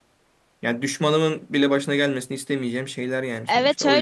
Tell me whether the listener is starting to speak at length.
Yes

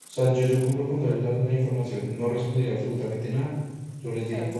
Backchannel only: Yes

